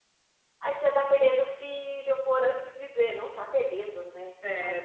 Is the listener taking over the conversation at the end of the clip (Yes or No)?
Yes